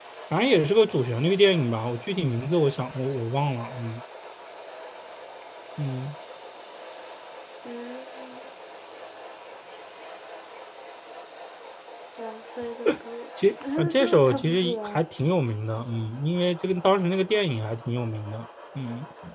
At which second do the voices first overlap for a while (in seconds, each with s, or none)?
13.6 s